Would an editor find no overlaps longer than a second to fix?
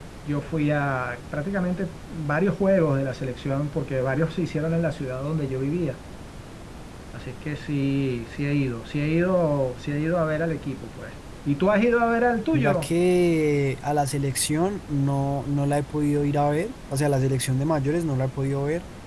Yes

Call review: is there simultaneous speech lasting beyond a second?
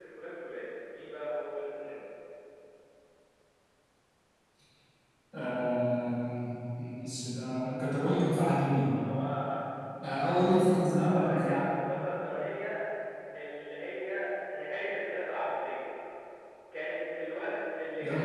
No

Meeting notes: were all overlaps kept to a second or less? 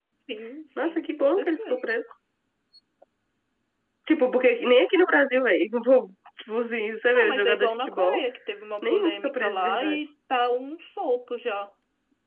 No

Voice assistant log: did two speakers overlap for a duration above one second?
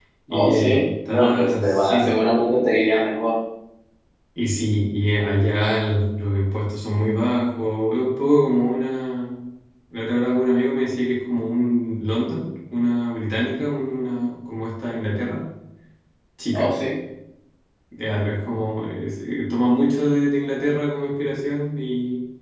Yes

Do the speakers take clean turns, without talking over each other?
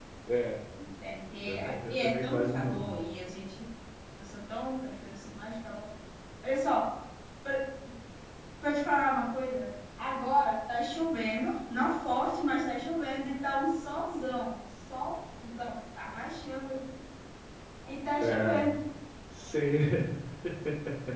No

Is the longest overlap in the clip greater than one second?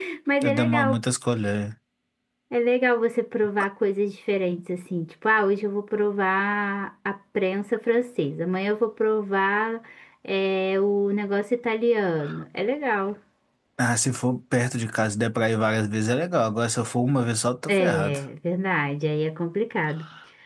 No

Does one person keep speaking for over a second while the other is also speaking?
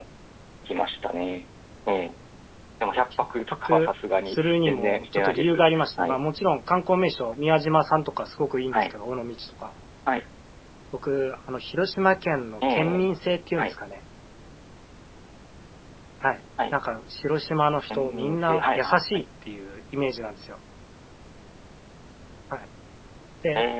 Yes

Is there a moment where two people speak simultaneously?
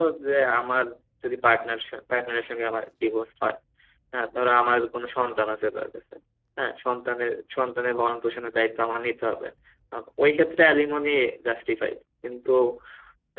No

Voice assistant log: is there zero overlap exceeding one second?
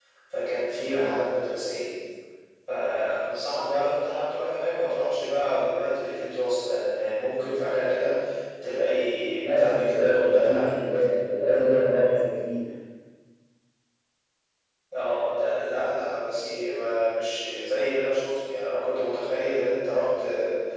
No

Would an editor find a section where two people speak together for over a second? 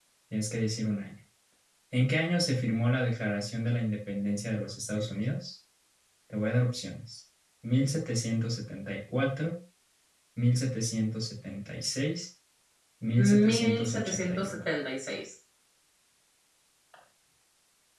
Yes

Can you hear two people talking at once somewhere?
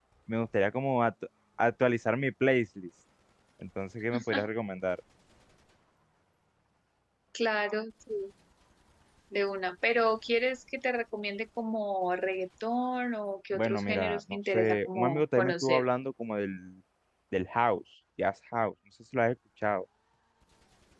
Yes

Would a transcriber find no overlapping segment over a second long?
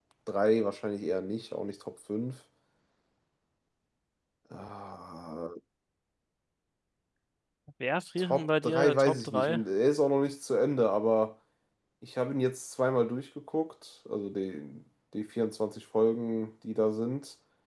No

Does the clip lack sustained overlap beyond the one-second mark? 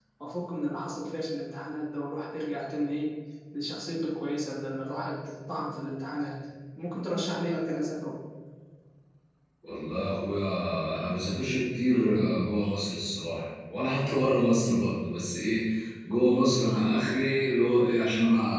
Yes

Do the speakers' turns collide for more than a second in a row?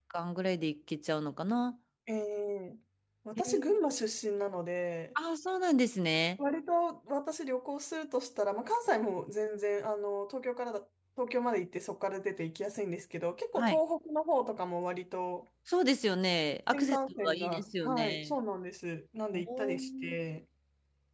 Yes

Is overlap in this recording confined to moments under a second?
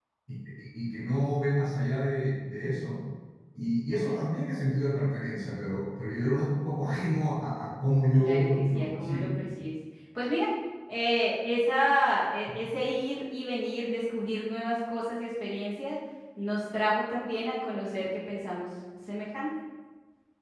No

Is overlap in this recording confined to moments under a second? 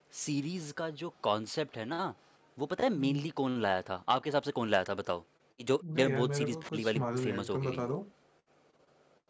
No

